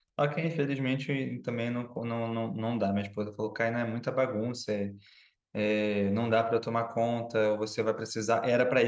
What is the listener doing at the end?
listening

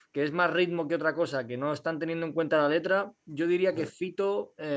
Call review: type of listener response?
listening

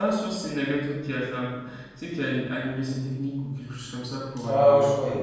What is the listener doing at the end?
taking over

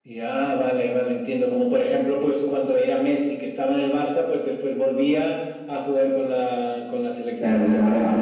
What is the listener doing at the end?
taking over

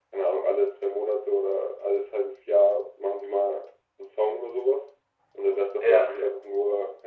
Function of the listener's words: listening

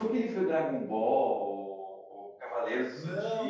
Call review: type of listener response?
taking over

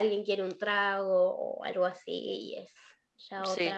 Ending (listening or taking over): taking over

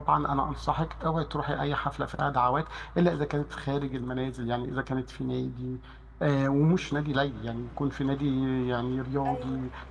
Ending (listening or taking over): listening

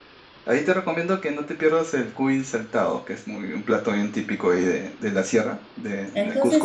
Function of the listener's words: taking over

